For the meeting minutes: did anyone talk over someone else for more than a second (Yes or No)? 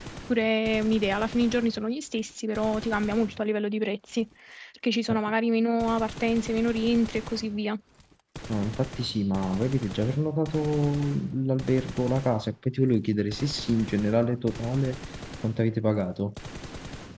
No